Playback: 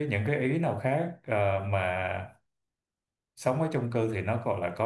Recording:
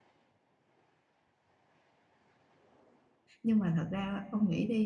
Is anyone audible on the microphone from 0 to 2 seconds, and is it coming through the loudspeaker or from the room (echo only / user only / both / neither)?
neither